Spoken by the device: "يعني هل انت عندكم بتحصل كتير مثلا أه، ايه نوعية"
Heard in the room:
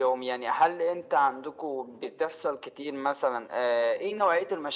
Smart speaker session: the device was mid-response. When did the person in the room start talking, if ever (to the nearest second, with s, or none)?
none